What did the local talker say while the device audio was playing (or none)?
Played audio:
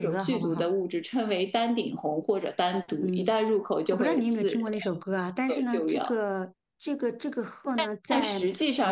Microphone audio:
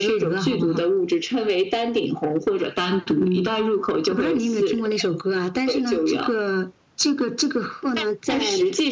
none